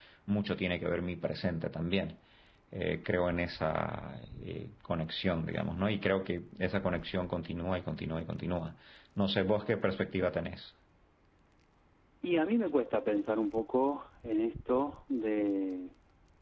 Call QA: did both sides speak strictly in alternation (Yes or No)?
Yes